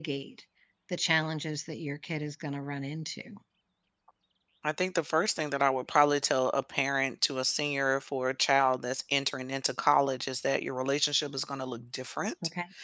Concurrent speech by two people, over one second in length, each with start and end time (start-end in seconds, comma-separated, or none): none